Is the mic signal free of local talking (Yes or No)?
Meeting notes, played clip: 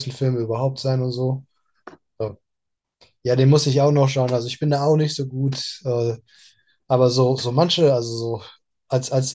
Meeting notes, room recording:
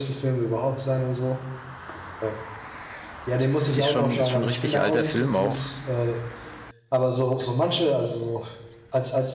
No